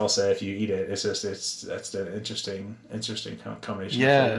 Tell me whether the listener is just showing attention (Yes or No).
No